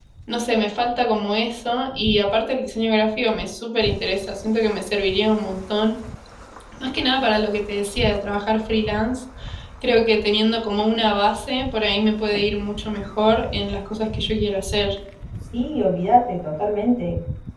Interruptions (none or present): none